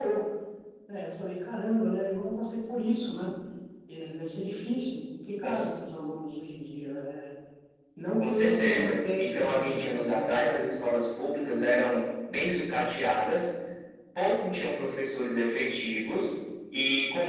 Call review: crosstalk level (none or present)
present